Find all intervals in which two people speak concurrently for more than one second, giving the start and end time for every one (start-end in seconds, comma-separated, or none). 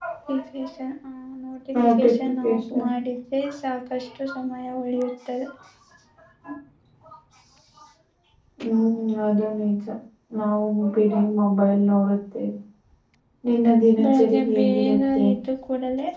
14.0-15.2